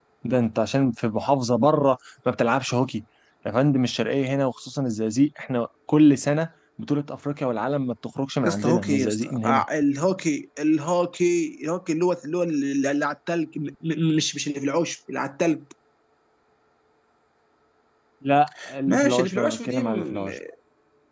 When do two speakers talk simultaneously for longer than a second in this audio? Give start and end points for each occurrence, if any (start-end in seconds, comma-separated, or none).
8.4-9.6, 18.9-20.3